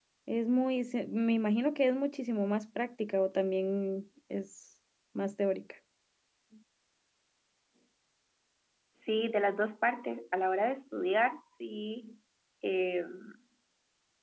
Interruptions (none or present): none